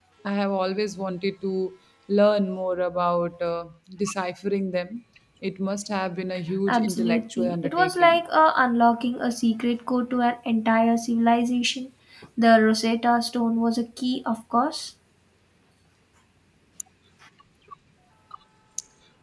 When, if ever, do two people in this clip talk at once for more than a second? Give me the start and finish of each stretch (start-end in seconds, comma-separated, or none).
6.7-8.2